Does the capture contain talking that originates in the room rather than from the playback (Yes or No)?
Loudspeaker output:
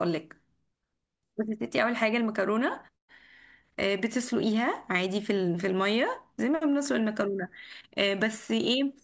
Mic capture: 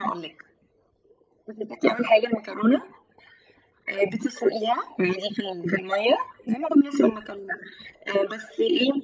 No